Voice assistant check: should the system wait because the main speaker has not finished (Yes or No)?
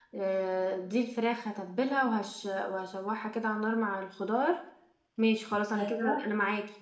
Yes